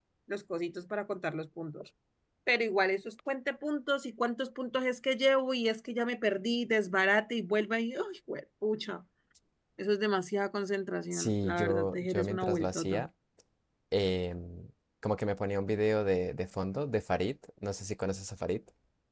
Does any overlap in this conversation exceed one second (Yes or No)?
Yes